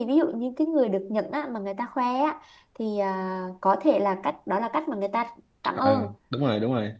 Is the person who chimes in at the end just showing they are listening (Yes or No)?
No